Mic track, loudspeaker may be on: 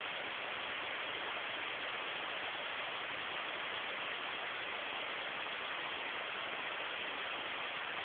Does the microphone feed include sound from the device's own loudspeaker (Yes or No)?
No